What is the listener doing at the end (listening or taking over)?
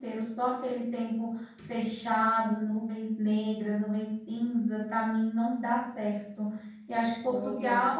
listening